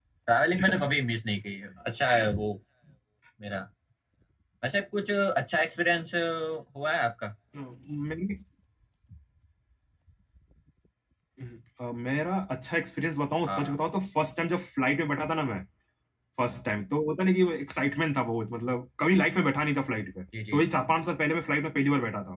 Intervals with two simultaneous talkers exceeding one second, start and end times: none

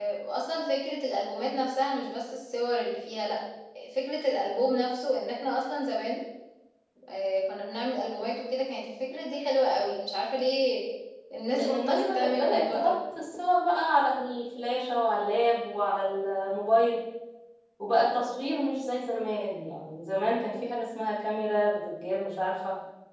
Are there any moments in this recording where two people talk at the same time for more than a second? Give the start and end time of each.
11.5-12.9

